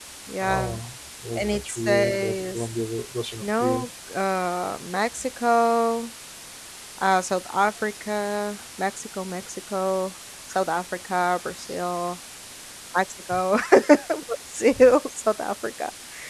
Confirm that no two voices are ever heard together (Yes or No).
No